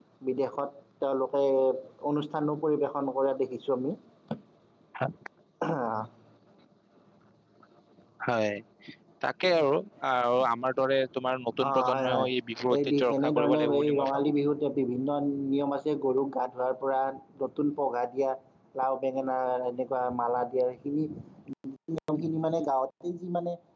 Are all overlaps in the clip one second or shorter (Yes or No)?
No